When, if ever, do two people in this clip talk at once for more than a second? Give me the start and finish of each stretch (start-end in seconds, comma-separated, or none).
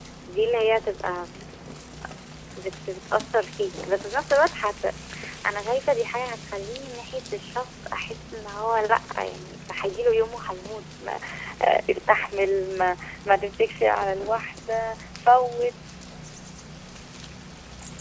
none